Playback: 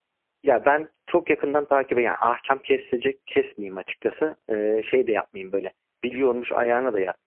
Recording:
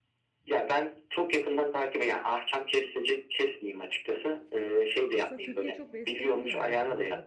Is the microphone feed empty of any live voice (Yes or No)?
No